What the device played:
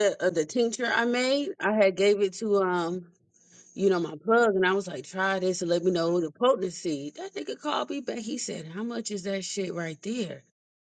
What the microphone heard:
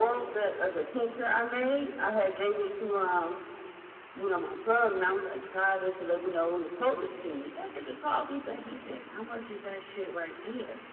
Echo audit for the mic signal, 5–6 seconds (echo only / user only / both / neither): echo only